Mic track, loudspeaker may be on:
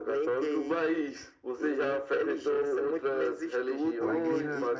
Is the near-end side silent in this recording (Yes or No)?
No